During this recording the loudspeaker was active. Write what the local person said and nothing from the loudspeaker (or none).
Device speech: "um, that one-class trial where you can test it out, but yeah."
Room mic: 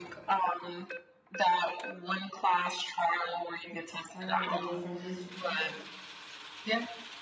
I don't know the difference between